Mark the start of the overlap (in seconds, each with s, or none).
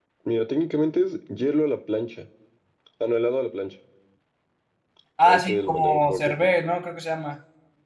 5.2 s